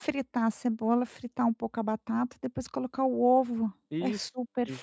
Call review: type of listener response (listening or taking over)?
taking over